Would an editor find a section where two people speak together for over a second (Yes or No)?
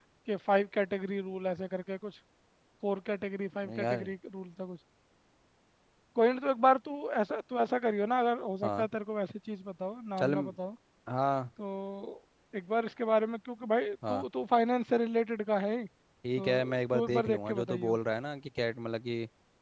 Yes